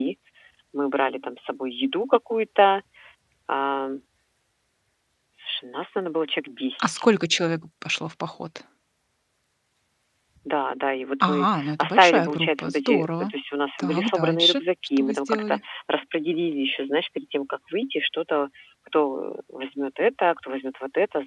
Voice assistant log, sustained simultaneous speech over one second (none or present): present